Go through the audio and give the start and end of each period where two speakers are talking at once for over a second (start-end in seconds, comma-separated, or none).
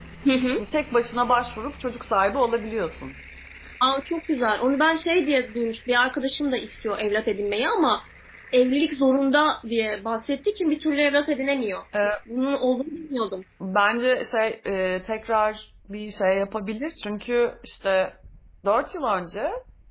none